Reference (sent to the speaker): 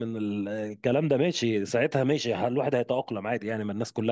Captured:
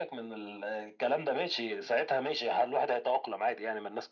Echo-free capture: No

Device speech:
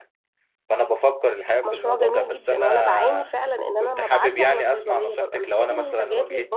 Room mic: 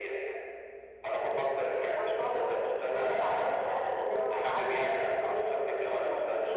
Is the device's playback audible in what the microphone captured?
Yes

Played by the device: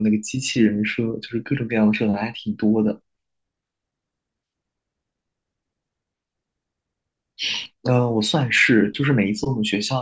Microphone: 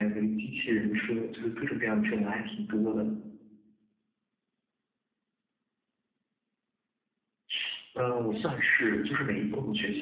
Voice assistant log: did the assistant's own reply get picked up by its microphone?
Yes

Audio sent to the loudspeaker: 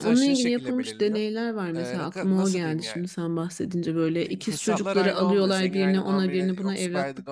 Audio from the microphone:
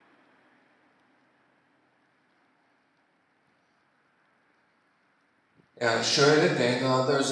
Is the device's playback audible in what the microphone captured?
No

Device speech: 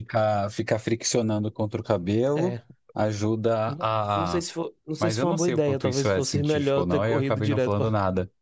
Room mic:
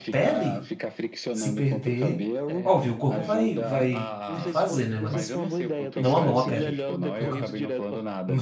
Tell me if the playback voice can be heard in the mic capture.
Yes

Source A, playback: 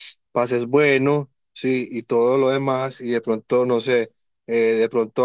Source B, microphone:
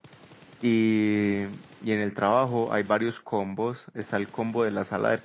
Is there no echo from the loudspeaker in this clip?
Yes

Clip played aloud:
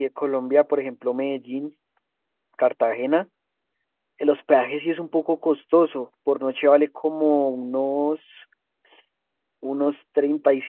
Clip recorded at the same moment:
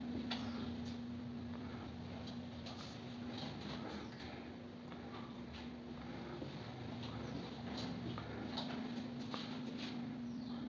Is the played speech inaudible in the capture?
Yes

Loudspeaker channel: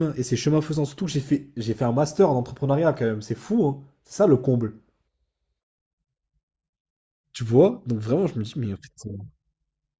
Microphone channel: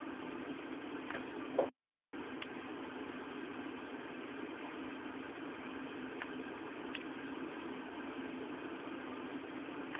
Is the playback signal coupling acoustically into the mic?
No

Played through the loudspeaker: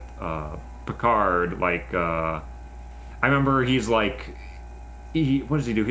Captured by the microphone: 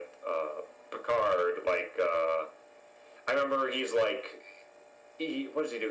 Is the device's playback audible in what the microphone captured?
Yes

